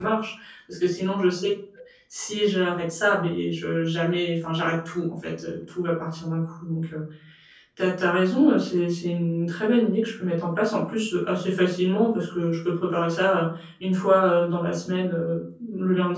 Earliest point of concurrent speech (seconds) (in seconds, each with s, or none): none